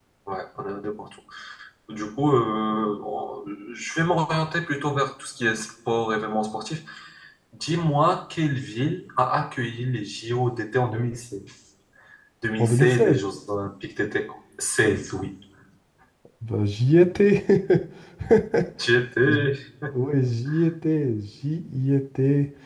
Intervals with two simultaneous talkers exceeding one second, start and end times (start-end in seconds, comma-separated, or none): none